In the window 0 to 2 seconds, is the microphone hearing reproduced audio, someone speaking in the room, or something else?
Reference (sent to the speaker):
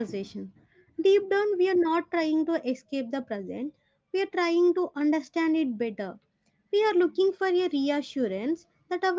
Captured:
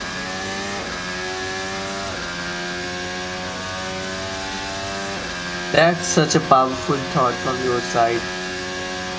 neither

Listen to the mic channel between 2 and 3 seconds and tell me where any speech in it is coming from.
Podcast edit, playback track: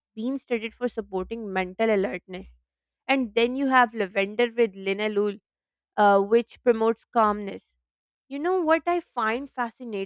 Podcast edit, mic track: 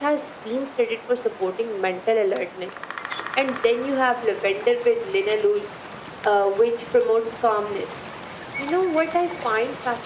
echo only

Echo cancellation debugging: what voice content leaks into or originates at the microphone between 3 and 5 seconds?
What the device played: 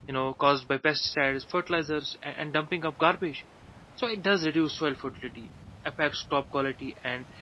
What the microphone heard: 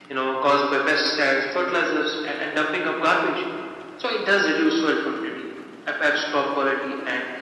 echo only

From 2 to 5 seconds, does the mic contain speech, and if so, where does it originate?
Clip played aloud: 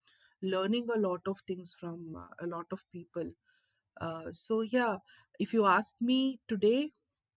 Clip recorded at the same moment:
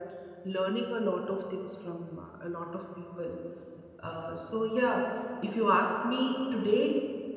echo only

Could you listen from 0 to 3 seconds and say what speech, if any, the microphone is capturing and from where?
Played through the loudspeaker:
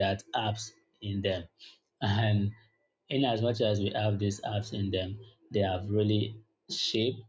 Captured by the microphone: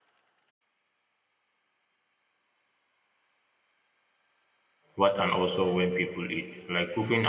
neither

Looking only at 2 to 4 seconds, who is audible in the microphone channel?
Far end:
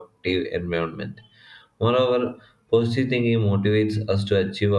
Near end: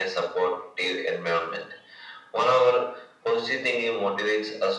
echo only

